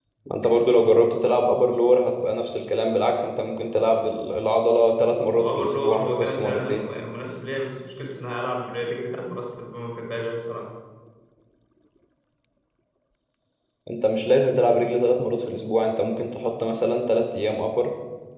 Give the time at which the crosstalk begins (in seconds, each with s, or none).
5.3 s